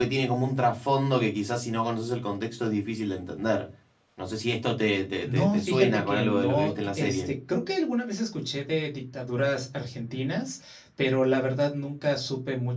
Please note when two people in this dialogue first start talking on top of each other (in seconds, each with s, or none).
5.2 s